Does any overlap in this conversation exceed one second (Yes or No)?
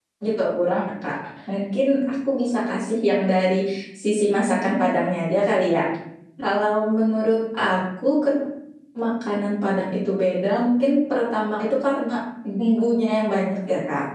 No